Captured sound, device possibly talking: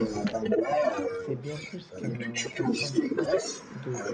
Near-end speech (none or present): present